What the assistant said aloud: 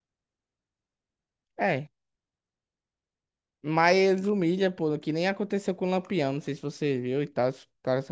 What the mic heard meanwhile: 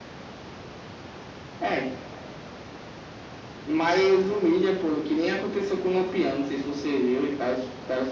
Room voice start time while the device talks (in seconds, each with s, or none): none